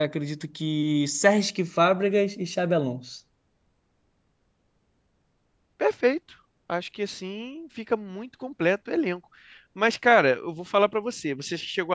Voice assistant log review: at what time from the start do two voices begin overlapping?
none

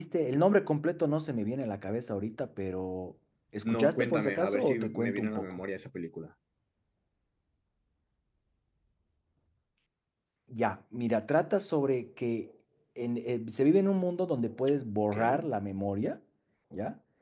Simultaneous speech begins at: 4 s

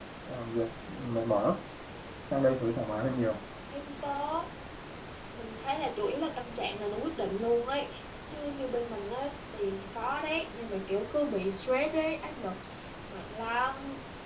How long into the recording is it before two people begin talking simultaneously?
none

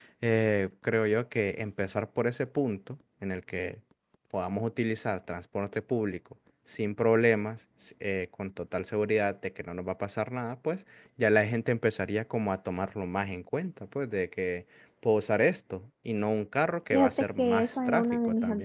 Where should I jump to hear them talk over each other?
17 s

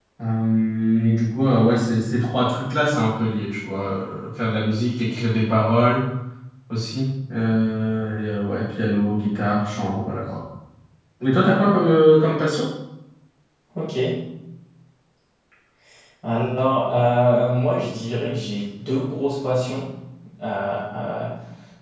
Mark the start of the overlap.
none

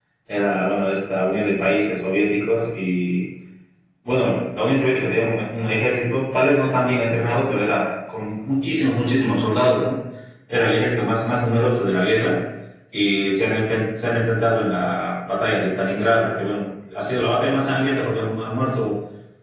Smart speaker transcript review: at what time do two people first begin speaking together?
none

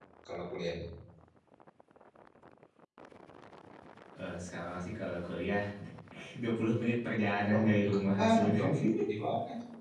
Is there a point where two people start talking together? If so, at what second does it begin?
8 s

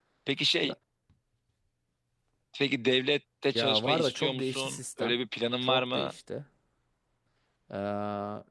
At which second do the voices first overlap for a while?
4 s

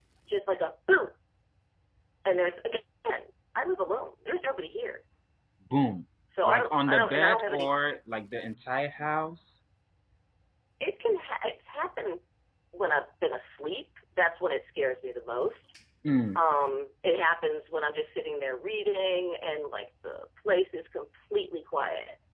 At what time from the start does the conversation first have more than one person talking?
6 s

